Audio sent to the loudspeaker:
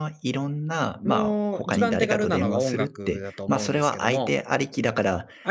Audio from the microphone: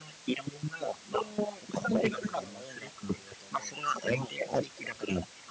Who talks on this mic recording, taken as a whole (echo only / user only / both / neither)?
echo only